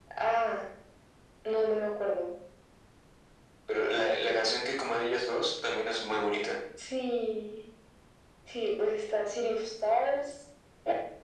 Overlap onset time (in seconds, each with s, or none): none